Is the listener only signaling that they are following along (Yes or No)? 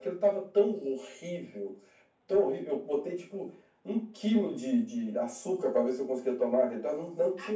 No